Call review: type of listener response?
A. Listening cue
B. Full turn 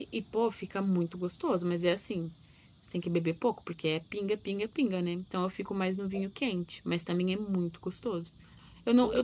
A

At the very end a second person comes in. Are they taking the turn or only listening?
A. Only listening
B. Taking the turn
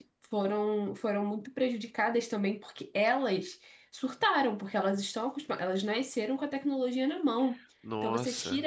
A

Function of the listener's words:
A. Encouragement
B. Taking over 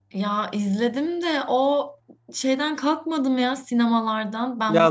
B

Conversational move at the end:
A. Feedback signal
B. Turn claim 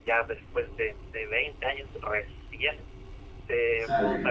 A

